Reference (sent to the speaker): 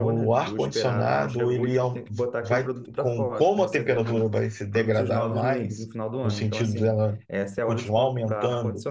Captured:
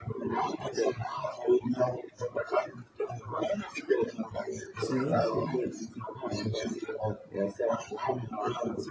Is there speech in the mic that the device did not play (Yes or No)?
Yes